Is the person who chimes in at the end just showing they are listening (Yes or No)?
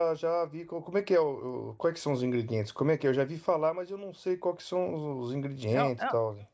No